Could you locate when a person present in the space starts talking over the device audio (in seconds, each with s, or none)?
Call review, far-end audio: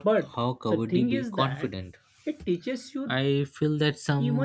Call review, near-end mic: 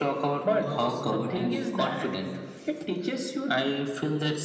0.6 s